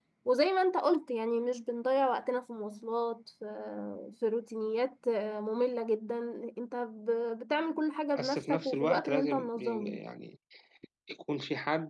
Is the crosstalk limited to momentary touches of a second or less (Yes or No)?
No